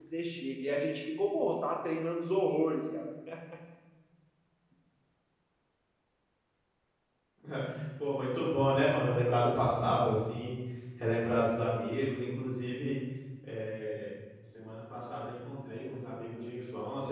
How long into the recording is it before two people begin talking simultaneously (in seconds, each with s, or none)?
none